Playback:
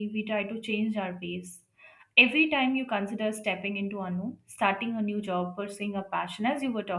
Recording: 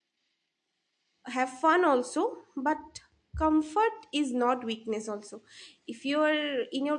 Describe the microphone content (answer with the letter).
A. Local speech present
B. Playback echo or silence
A